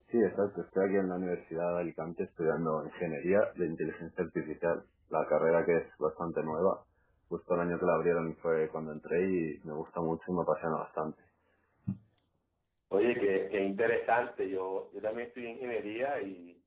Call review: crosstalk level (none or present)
none